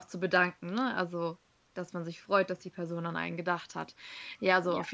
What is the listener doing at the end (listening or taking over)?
listening